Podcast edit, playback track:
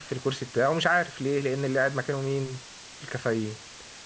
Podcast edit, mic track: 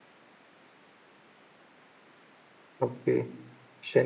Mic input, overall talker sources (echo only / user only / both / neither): user only